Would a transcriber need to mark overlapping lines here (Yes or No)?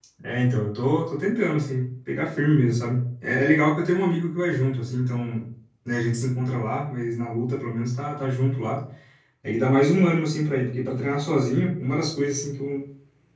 No